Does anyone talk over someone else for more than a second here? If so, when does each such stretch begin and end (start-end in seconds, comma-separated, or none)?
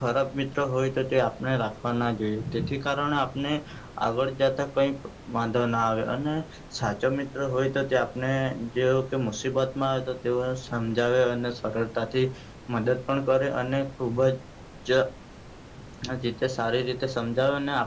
none